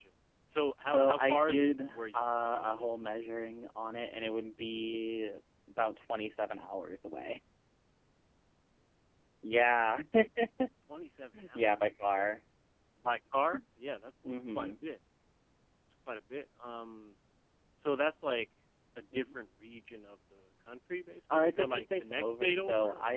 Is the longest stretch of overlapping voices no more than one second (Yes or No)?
No